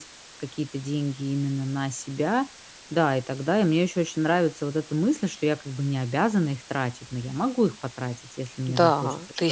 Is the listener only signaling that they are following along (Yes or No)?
No